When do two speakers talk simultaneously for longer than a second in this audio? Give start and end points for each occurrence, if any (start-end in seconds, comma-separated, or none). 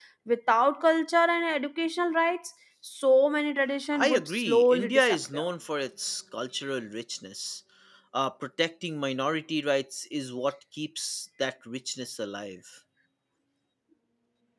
3.9-5.4